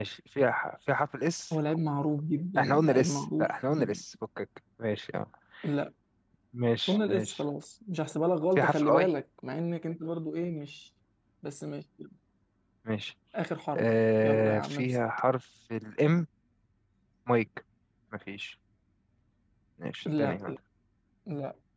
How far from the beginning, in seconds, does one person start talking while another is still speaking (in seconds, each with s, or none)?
2.6 s